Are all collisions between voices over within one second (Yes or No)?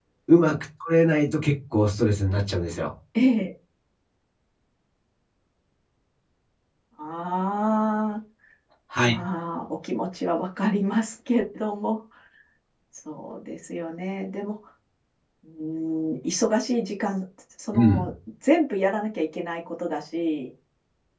Yes